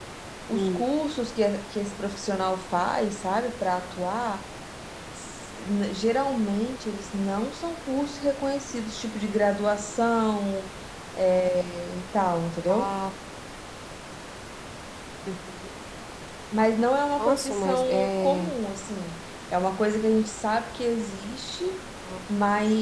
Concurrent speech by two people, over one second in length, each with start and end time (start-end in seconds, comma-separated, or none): 17.2-18.6